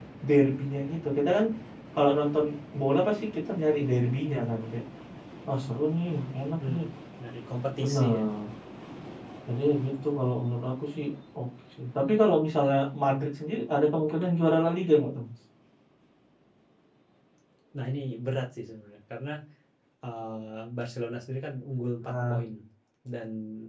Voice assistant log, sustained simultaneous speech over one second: none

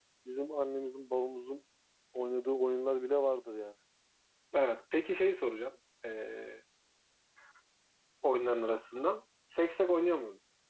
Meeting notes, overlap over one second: none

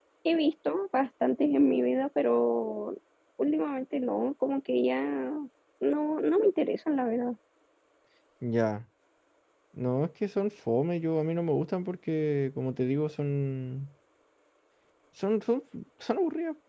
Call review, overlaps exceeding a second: none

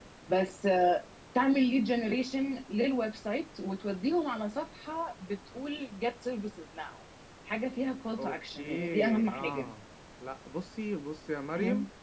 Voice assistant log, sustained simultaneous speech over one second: present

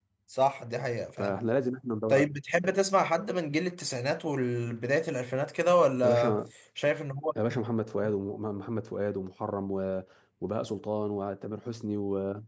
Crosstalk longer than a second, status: none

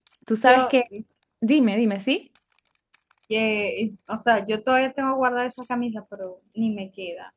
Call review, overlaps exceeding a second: none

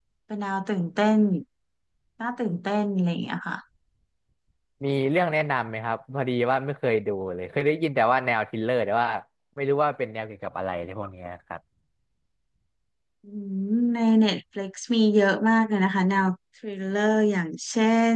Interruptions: none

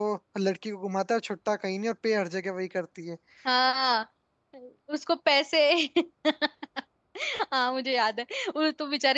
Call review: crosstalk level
none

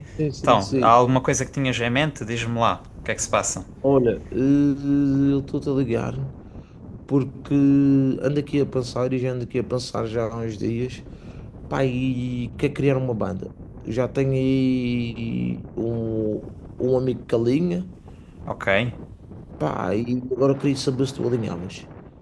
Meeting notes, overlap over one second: none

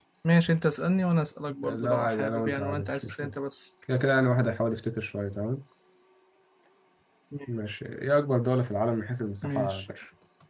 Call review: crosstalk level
present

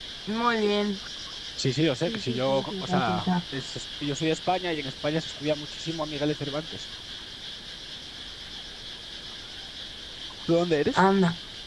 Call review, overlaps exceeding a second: present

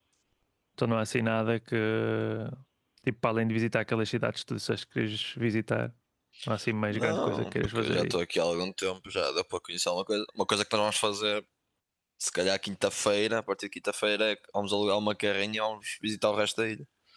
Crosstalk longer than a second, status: present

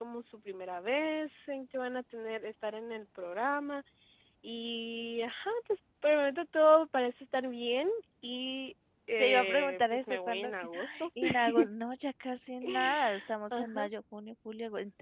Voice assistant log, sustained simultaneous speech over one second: present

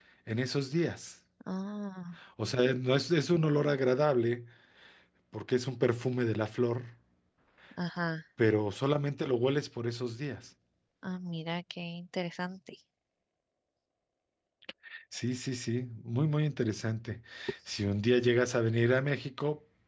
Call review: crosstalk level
none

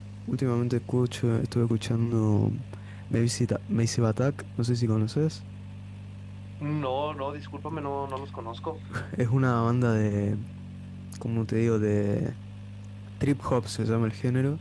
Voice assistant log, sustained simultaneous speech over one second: none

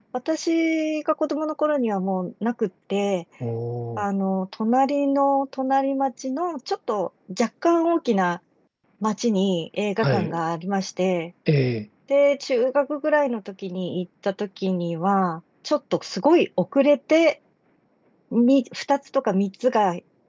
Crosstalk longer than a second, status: none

